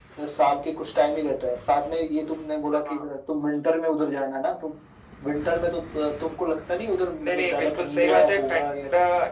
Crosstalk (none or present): present